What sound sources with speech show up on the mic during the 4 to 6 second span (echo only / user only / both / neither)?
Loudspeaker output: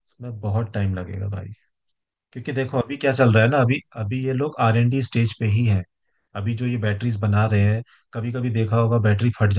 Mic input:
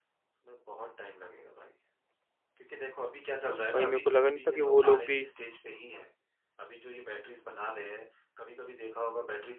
both